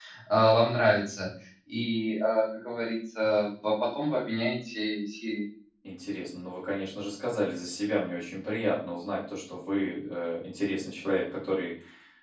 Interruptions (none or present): none